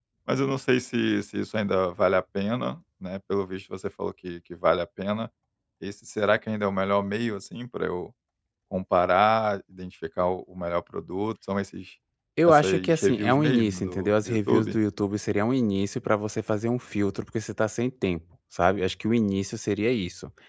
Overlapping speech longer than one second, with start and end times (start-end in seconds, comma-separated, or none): 12.4-14.8